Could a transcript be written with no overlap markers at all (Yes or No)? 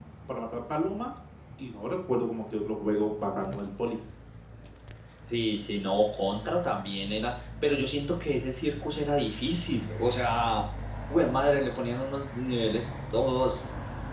Yes